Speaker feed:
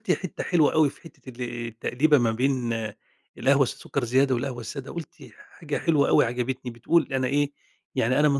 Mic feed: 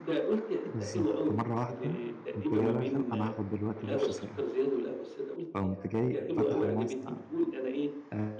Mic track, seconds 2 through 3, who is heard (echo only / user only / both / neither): both